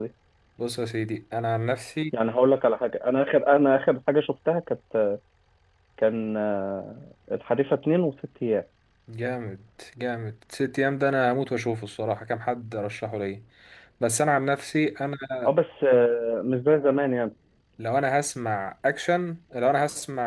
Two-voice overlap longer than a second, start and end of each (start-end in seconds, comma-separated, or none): none